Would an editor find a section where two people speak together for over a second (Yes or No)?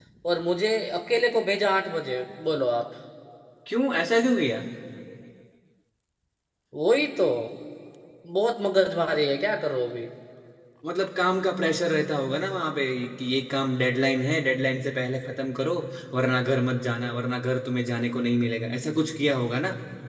No